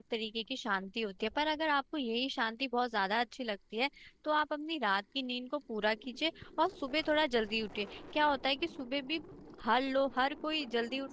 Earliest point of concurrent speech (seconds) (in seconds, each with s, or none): none